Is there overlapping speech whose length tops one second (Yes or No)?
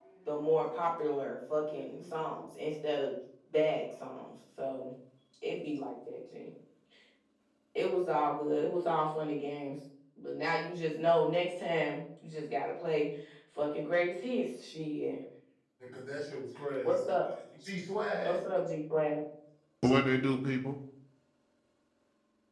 No